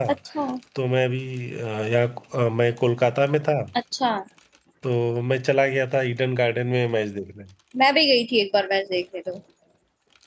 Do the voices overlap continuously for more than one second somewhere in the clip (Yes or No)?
No